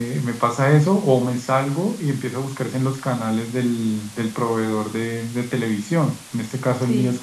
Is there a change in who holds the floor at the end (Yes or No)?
No